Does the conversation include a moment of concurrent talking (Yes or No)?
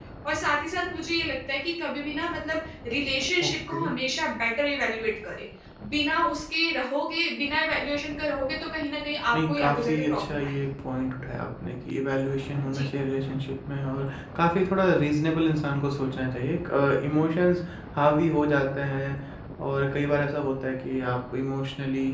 Yes